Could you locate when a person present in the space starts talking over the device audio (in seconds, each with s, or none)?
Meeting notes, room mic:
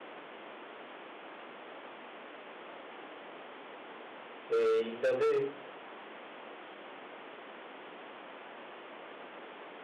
4.5 s